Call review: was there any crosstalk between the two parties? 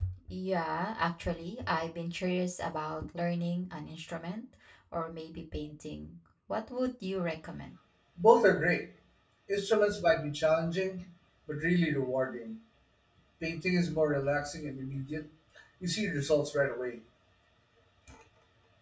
No

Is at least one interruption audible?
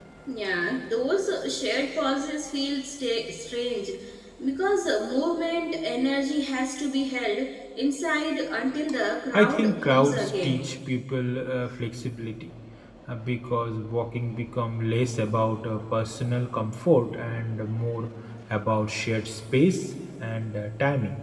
Yes, from 9.3 s

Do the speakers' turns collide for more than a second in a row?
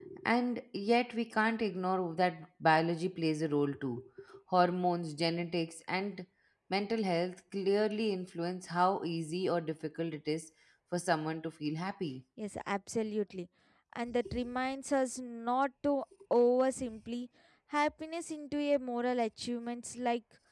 No

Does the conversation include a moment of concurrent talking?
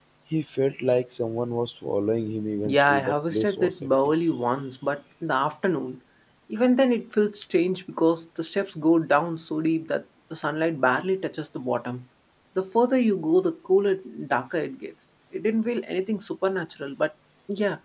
Yes, from 2.6 s

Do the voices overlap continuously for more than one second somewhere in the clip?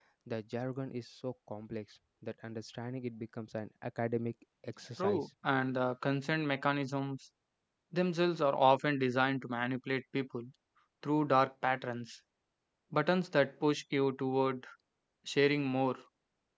No

